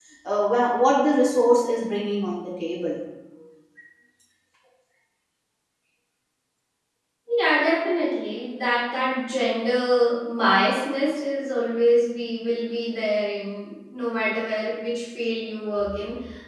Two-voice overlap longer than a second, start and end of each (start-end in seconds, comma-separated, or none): none